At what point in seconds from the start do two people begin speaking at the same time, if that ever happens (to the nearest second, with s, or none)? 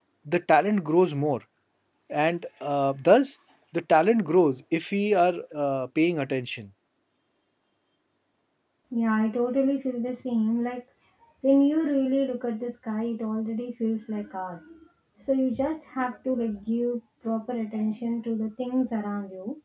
none